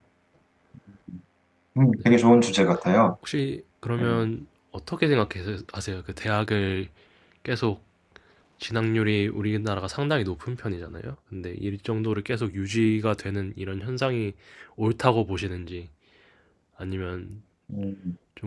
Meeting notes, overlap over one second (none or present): none